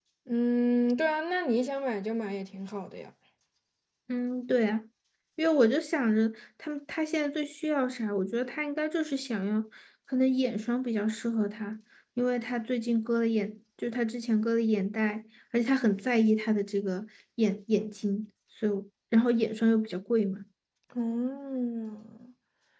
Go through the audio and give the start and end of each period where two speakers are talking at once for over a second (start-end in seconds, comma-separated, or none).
none